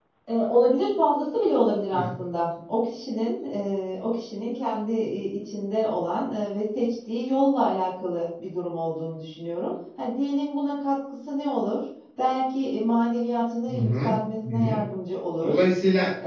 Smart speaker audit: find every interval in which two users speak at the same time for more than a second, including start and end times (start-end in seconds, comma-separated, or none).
none